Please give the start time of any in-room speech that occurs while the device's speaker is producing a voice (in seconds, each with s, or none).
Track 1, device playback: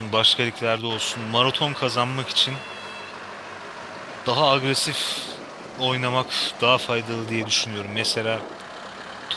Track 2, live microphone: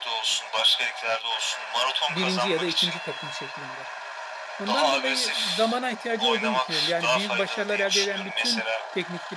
2.1 s